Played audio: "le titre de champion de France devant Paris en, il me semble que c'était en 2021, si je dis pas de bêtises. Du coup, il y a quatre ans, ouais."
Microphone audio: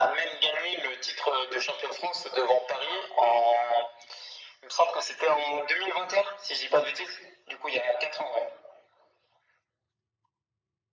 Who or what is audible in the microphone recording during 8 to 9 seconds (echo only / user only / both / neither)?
echo only